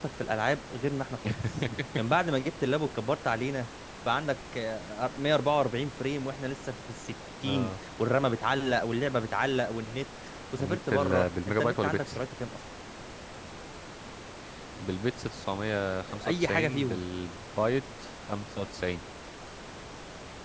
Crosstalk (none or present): present